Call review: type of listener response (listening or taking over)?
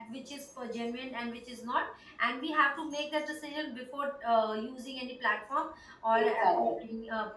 listening